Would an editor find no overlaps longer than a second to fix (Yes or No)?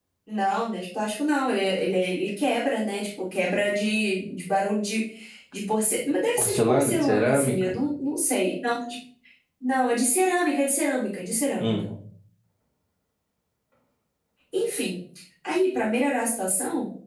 No